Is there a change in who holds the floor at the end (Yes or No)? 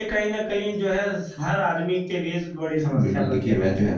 Yes